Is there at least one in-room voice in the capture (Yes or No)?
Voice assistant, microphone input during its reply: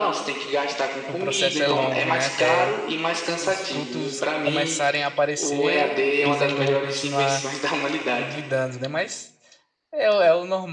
Yes